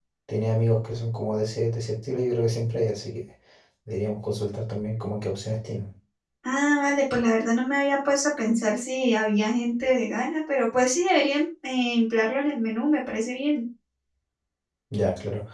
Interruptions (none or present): none